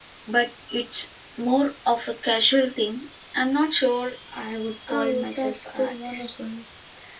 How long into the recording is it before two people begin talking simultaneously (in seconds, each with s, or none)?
4.9 s